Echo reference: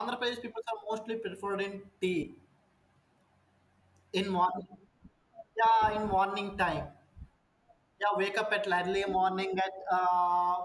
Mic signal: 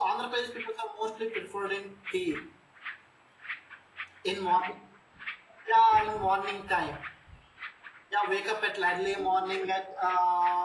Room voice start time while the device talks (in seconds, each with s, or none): none